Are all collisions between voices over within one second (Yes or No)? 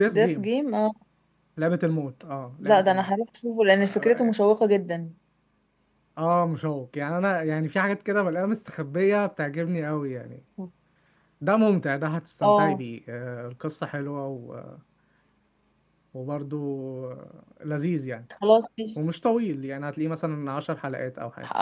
Yes